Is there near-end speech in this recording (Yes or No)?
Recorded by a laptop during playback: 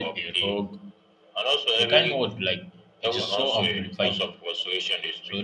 Yes